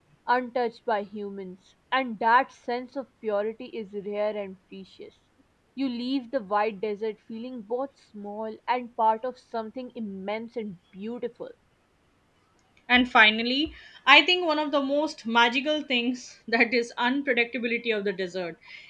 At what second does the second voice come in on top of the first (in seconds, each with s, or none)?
none